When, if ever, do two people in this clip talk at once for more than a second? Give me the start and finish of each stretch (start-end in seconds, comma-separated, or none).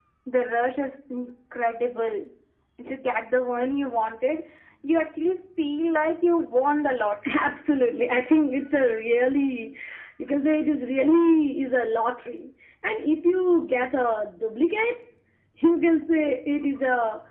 none